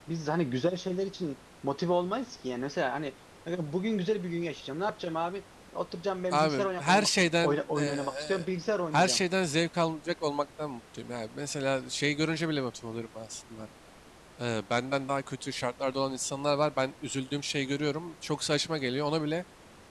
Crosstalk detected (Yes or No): Yes